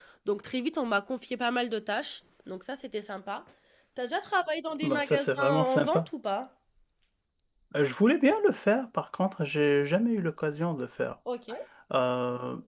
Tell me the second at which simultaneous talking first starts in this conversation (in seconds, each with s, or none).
4.8 s